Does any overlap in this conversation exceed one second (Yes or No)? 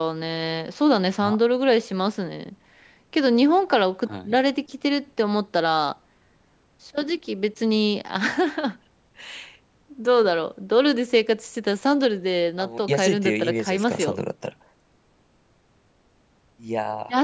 Yes